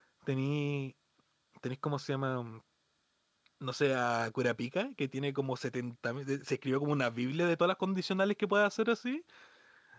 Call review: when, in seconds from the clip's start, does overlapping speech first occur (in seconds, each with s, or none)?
none